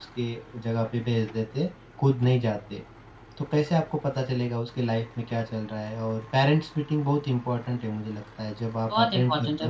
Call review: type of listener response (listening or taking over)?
taking over